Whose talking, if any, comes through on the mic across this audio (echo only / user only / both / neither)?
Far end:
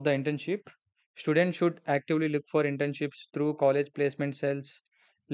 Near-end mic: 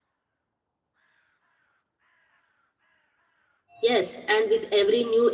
user only